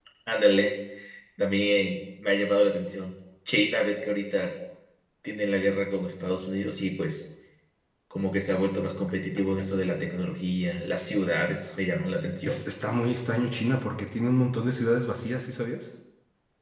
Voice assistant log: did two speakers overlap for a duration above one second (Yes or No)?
No